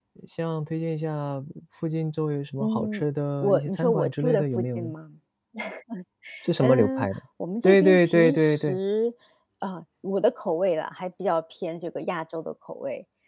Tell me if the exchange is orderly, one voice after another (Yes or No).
No